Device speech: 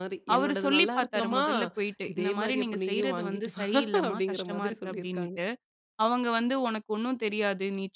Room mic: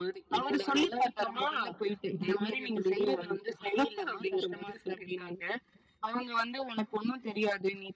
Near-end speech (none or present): none